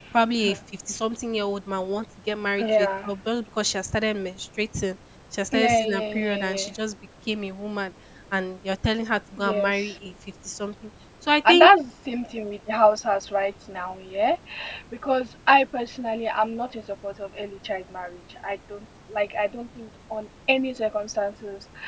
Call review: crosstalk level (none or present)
present